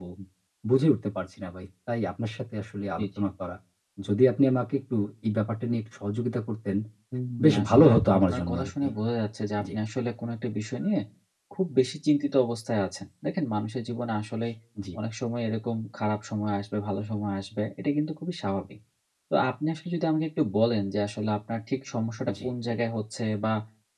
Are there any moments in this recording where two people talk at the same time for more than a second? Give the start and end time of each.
7.4-8.9

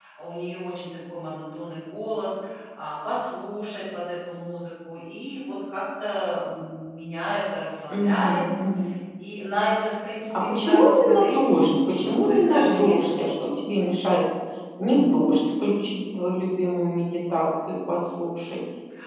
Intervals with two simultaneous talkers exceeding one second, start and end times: 10.5-13.2

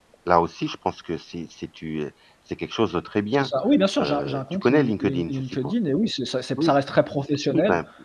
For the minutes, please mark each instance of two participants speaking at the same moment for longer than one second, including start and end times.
4.0-5.7

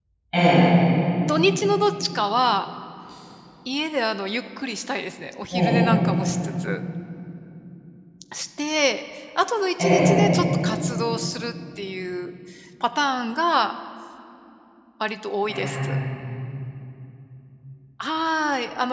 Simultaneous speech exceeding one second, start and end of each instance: none

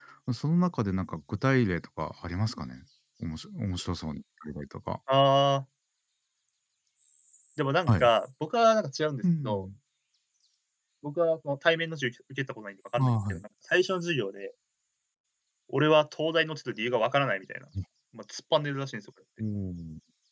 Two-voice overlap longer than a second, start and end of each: none

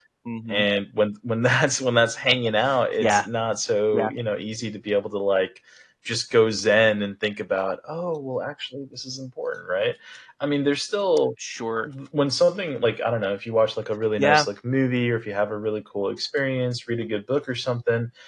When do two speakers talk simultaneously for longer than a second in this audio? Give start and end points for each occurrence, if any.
none

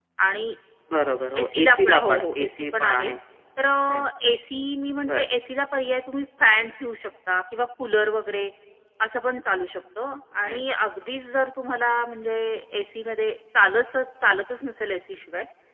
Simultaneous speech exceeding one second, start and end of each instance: 1.4-3.1

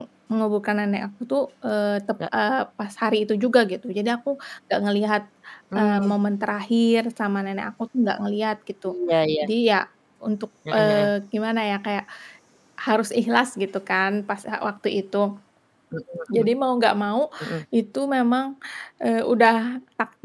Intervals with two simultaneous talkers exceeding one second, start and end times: none

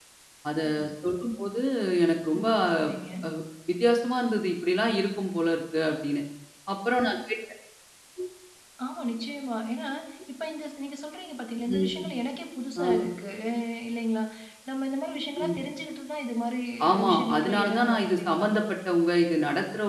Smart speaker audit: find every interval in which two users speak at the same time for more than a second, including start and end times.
17.1-18.5

